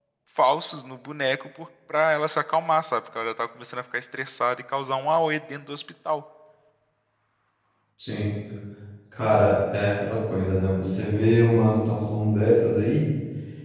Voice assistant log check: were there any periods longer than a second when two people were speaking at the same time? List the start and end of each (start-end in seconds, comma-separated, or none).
none